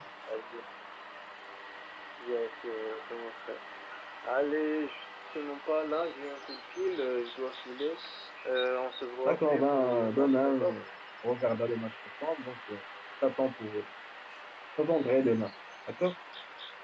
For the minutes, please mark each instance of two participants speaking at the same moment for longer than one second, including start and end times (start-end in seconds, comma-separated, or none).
9.2-10.6